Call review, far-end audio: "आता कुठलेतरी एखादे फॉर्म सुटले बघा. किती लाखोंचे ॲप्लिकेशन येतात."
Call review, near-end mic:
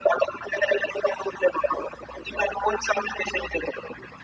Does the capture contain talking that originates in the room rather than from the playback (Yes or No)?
No